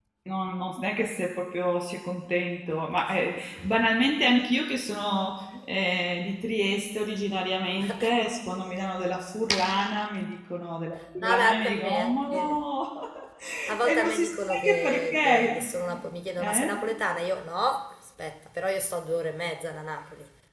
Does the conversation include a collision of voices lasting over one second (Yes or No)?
Yes